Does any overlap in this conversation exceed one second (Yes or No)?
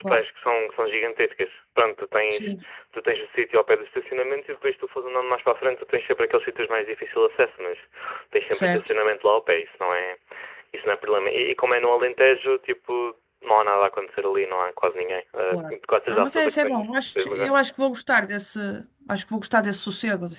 Yes